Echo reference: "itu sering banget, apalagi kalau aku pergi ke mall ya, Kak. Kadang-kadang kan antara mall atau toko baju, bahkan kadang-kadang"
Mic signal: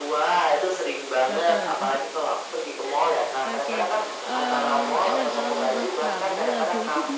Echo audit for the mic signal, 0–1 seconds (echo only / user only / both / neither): echo only